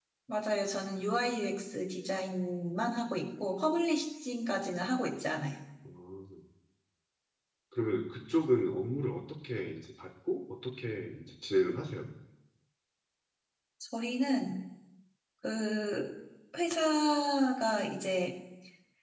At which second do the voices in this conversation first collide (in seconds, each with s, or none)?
none